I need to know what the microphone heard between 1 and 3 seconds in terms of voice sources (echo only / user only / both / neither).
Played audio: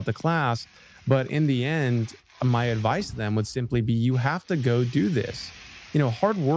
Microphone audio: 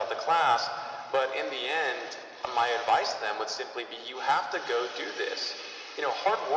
echo only